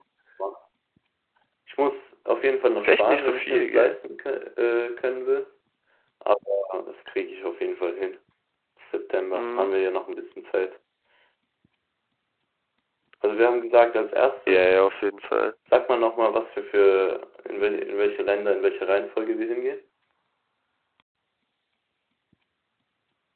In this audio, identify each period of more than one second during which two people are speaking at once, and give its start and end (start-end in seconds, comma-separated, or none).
2.8-4.0